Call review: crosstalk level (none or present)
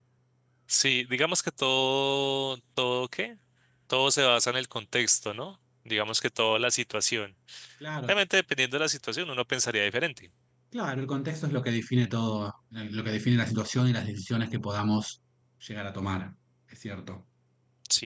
none